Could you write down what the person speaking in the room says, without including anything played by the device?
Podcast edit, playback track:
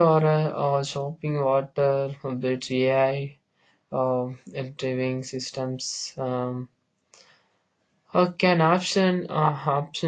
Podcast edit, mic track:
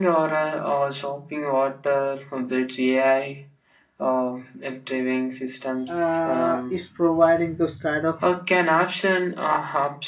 uh, is providing those kind of

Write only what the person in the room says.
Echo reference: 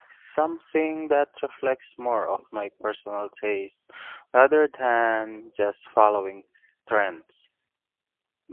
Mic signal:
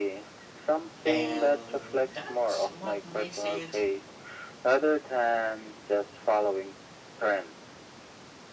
And that's what makes it

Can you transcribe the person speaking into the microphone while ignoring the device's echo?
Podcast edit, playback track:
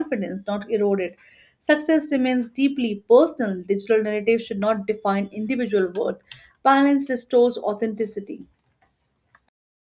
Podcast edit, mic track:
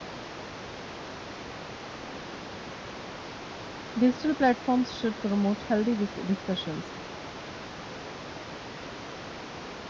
Digital platforms should promote healthy dis- discussions.

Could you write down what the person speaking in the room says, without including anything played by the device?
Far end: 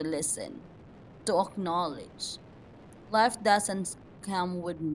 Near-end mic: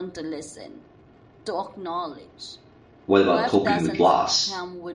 what about coping with loss

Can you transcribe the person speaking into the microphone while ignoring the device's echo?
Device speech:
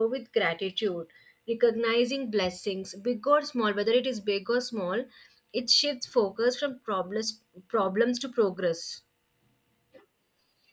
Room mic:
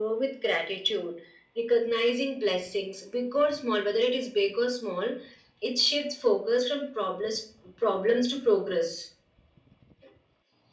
none

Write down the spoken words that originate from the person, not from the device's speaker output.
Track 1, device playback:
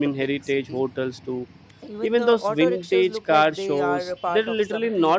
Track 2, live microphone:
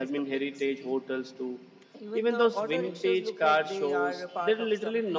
none

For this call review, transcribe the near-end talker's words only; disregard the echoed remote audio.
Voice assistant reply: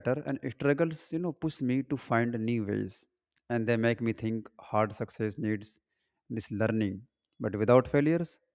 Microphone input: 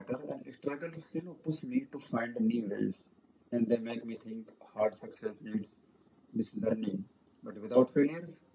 none

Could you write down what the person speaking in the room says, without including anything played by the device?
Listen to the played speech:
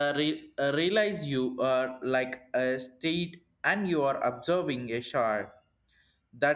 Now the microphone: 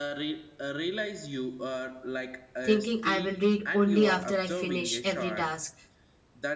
thinking i will read only after i finish every task

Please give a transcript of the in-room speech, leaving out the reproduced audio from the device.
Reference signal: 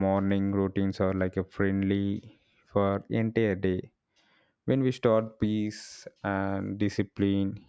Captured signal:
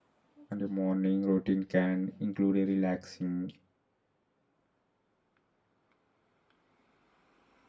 and the morning routine can include a relaxing

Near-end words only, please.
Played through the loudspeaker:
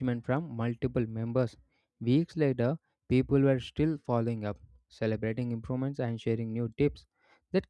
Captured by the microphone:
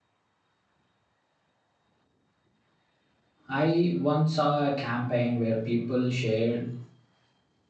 I once saw a campaign where people shared

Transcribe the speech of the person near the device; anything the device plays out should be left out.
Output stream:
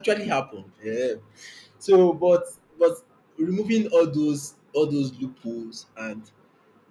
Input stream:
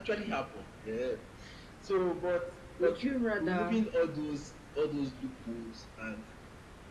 Would you rather?

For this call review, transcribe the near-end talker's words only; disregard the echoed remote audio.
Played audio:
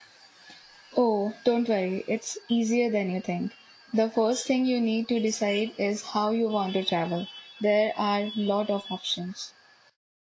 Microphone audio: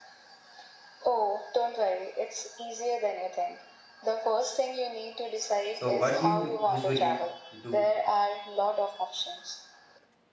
So, what do you m- usually do

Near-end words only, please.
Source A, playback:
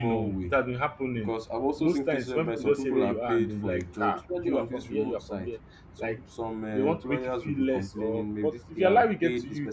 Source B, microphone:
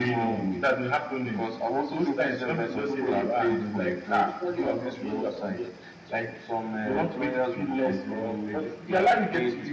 none

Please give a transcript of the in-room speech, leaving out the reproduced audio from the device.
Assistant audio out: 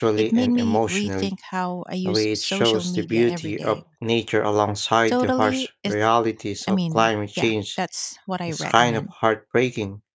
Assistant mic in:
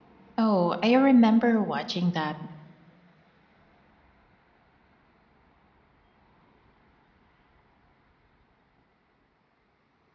Oh, I remember watching that.

